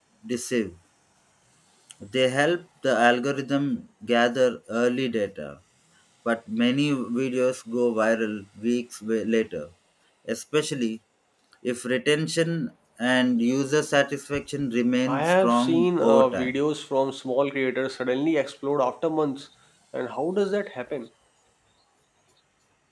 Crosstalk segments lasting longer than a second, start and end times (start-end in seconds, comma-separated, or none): 15.0-16.5